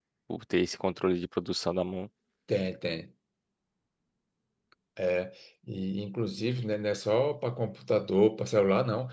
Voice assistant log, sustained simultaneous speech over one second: none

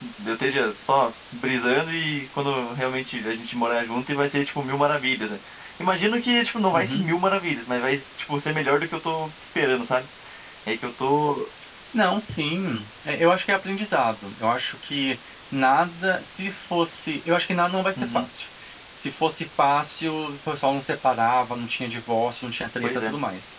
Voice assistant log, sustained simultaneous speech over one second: none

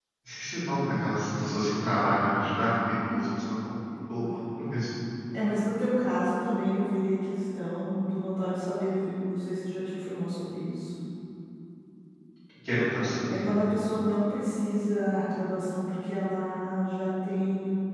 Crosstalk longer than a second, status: none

